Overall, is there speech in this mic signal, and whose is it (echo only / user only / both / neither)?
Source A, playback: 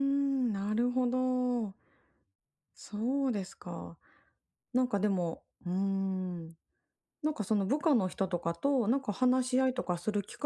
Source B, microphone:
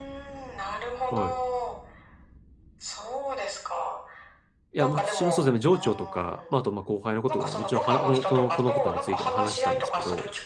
both